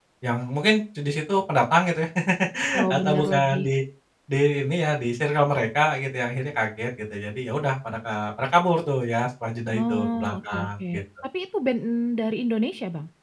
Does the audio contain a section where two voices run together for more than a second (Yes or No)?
Yes